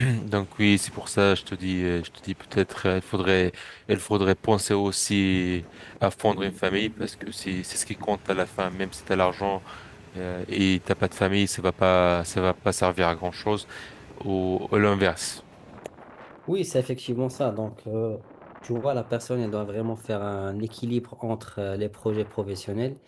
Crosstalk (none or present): none